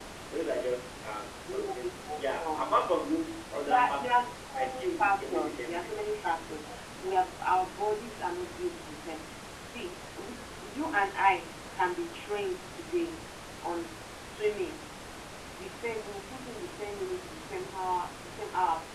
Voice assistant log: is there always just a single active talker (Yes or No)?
No